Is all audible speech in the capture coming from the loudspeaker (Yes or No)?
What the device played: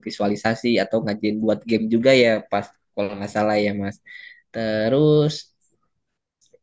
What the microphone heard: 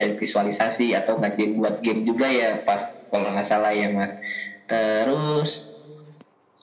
Yes